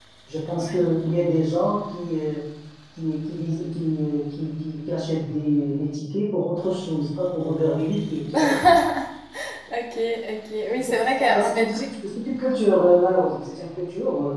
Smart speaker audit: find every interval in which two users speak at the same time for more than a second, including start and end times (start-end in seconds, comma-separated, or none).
10.8-12.0